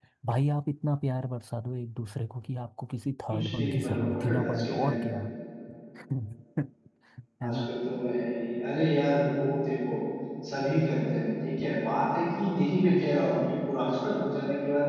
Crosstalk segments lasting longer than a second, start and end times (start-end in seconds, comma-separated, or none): 3.3-5.1